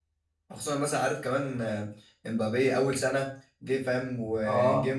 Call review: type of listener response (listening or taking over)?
listening